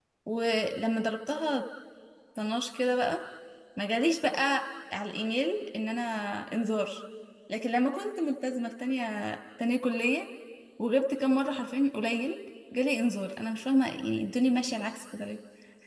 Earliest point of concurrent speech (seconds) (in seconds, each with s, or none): none